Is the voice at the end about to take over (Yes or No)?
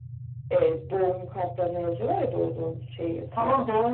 Yes